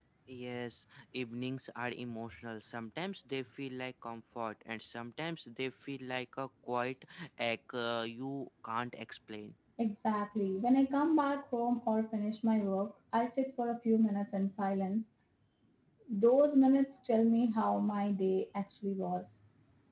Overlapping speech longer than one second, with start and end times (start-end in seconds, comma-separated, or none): none